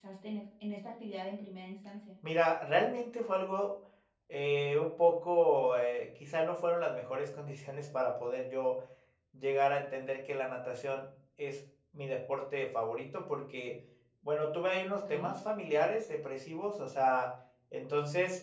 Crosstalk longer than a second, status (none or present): none